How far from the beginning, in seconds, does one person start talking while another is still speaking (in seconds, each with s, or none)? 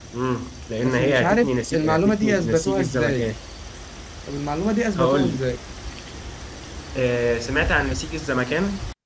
0.8 s